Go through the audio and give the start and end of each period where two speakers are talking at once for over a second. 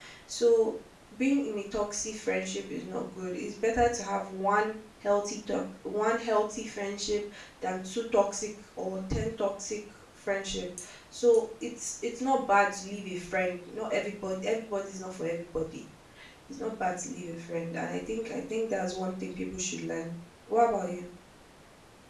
none

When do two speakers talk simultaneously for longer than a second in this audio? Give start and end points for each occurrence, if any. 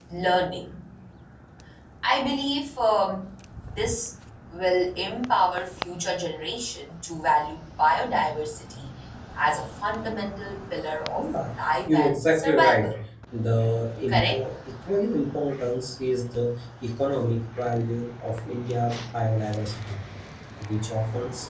11.2-12.9

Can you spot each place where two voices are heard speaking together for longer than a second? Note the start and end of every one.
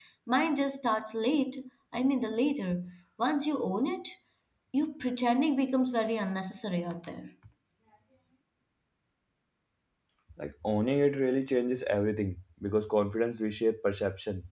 none

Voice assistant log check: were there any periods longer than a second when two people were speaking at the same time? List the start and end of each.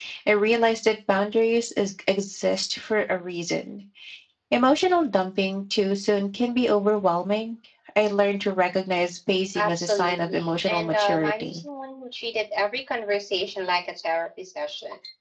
9.6-11.6

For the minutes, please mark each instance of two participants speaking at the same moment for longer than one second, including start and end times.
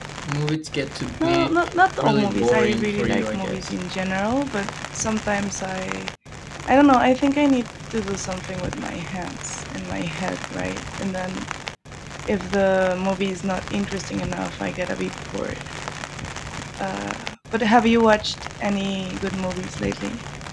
2.0-3.7

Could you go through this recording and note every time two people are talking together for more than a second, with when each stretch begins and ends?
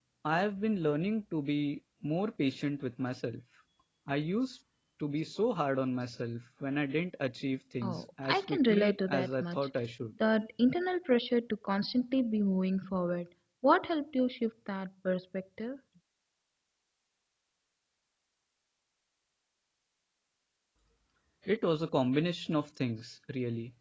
7.8-9.7

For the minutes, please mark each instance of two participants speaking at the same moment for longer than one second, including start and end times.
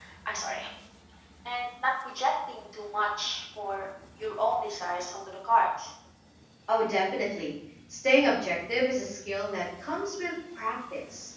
none

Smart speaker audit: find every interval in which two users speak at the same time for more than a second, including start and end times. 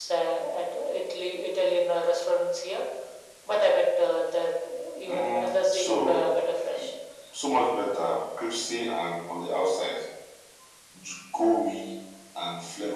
5.0-6.3

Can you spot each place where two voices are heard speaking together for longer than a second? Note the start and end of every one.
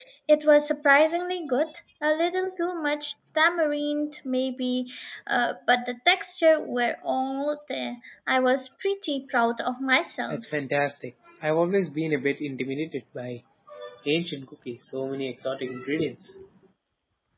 none

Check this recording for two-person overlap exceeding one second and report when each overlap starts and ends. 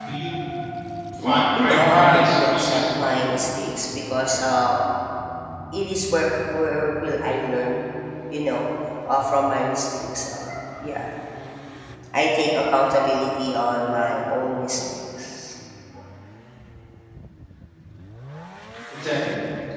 1.2-3.3

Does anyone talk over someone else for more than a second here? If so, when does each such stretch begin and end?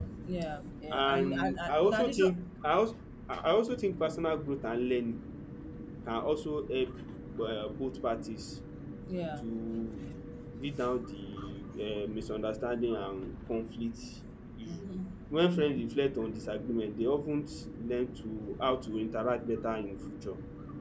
0.9-2.3

